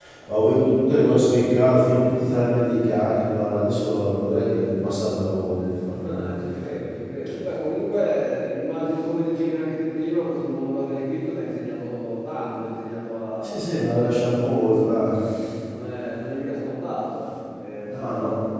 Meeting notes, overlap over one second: none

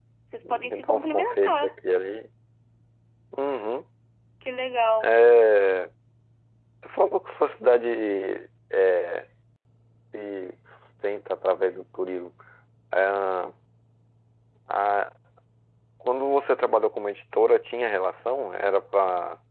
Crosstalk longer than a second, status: present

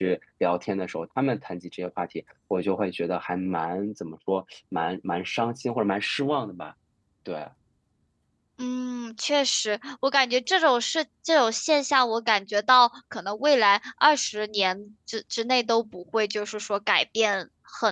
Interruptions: none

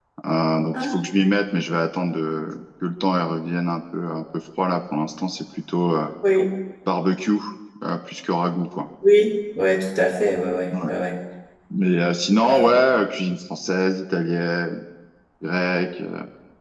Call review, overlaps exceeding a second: none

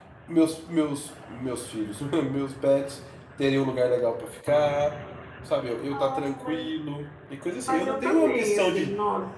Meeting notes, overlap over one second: present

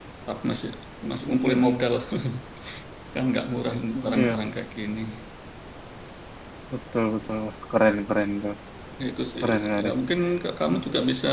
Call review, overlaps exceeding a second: none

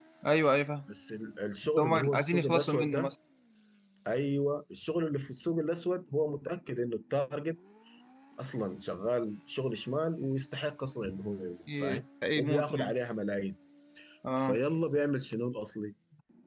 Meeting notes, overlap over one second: present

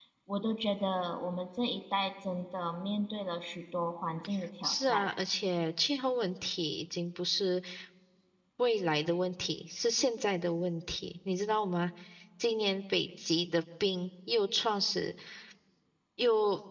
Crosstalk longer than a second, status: none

